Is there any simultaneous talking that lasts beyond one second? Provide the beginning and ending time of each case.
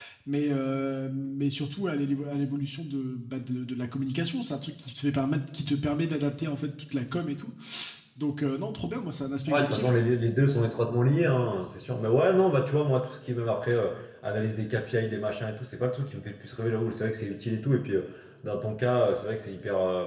none

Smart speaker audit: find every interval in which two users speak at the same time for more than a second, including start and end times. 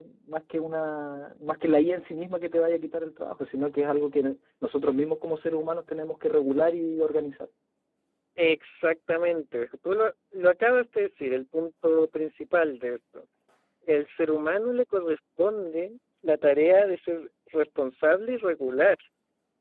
none

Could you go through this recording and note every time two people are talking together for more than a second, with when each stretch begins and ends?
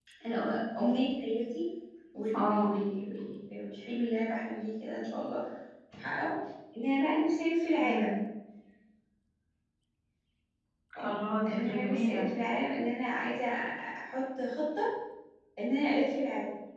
11.0-12.3

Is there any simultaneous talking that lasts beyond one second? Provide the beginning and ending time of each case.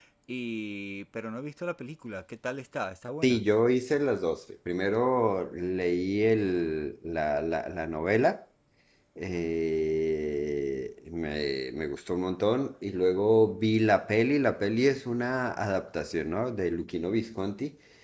none

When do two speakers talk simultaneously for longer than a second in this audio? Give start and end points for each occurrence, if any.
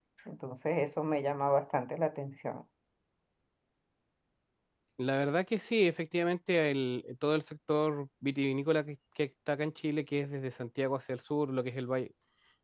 none

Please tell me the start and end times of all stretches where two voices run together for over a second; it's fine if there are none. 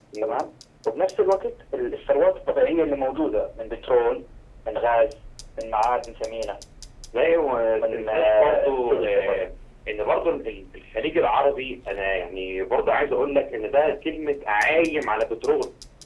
7.8-9.4

